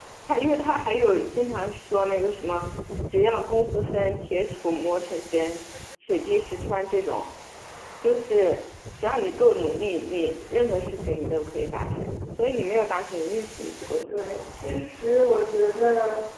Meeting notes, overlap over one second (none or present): none